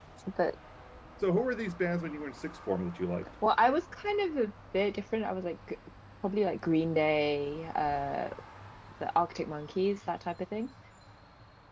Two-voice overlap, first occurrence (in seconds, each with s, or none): none